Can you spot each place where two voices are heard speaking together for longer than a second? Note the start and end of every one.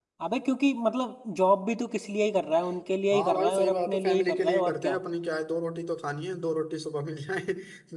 3.1-5.0

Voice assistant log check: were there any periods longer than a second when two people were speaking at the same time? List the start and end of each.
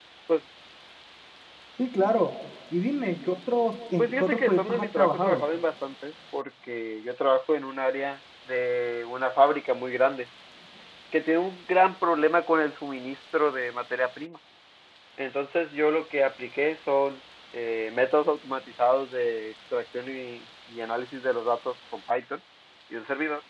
4.0-5.5

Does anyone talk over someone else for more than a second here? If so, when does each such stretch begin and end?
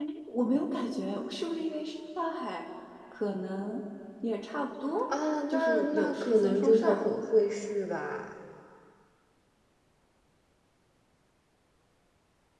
5.5-7.1

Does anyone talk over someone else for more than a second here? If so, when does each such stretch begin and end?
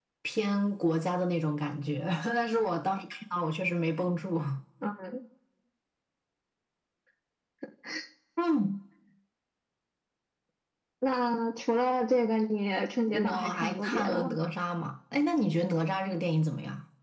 13.1-14.3

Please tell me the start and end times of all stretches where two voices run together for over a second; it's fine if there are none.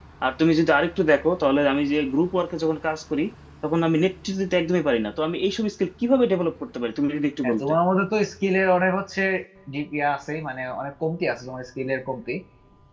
none

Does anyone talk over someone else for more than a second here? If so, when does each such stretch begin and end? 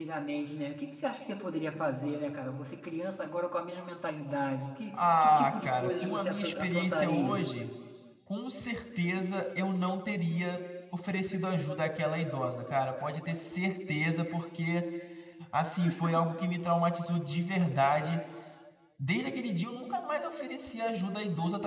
4.9-7.5

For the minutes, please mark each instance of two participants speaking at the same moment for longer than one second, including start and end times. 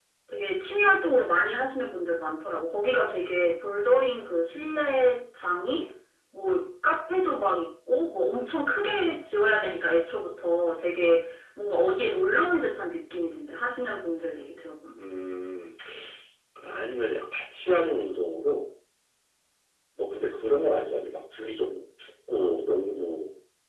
none

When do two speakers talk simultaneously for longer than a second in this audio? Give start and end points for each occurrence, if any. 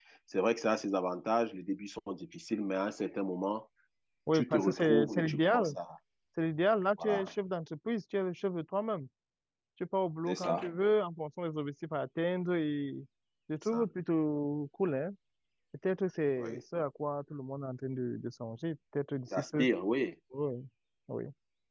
4.3-5.8

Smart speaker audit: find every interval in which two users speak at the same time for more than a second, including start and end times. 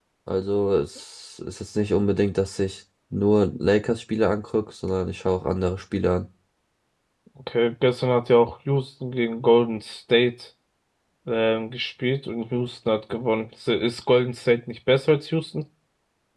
none

